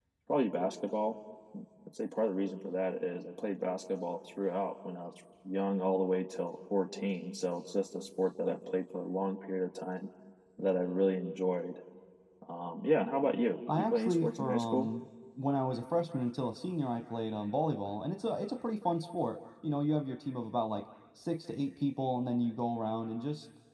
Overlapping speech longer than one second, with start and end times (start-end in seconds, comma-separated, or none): 13.7-14.9